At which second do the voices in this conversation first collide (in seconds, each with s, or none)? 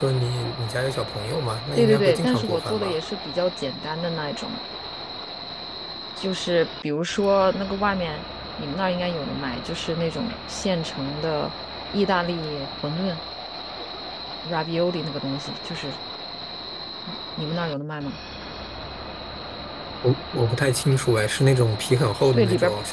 1.8 s